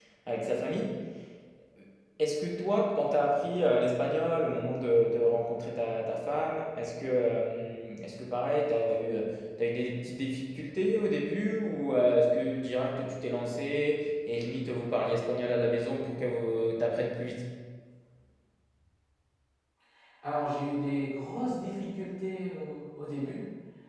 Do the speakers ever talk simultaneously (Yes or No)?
No